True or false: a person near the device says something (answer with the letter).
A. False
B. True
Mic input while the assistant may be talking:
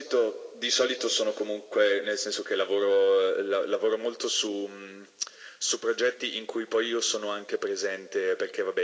A